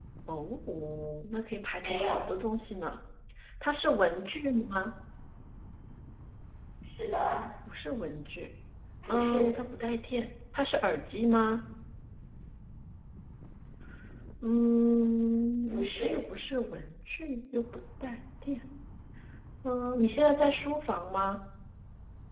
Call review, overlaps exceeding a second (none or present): none